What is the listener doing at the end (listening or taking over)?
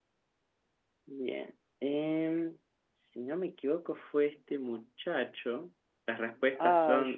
listening